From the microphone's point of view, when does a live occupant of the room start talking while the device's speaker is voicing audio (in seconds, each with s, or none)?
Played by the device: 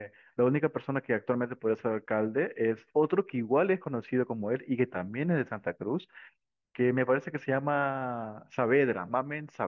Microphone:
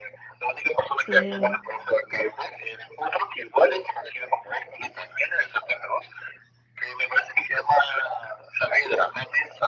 0.9 s